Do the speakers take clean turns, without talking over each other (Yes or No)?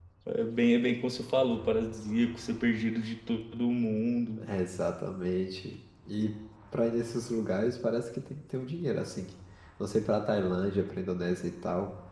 Yes